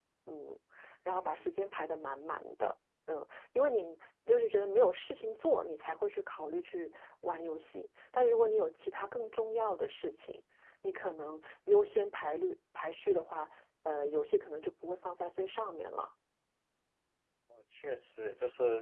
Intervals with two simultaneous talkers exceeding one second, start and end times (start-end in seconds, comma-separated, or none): none